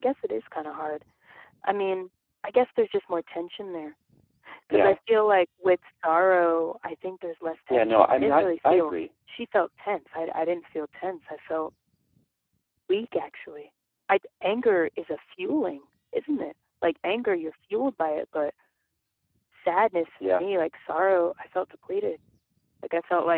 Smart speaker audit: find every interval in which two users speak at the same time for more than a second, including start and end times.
7.7-9.0

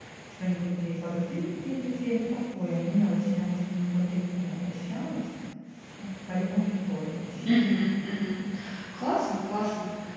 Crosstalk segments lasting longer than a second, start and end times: none

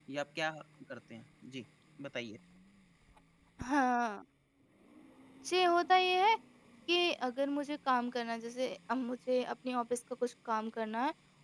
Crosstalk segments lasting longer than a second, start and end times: none

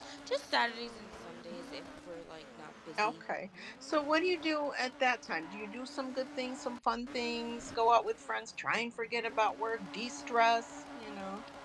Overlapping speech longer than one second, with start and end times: none

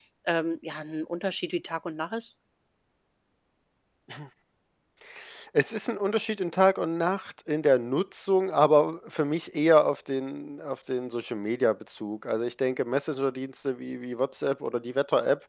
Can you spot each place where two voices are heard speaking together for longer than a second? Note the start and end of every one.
none

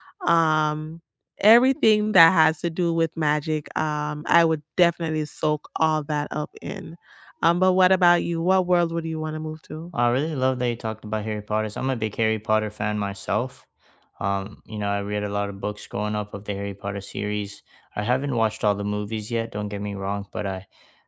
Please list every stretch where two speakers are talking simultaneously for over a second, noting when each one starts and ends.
none

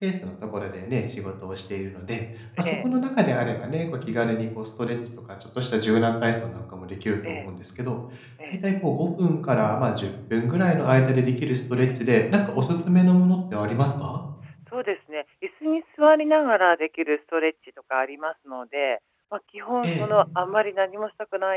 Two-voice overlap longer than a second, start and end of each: none

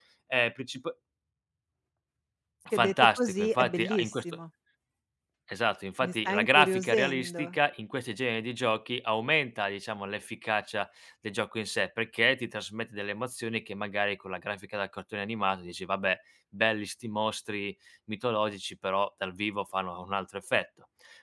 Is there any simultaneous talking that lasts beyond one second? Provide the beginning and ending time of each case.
2.7-4.2, 6.0-7.4

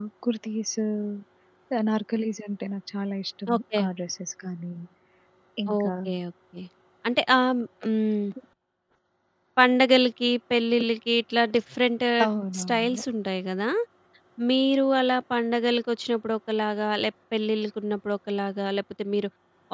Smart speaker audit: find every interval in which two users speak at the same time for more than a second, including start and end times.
none

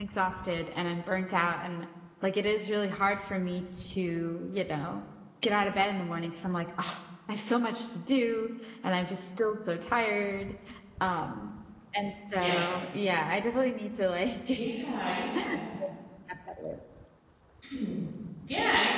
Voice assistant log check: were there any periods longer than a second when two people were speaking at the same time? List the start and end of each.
none

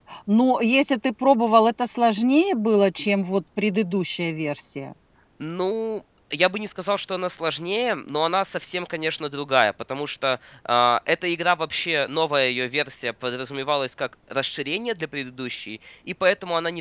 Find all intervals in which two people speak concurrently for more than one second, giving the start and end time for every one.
none

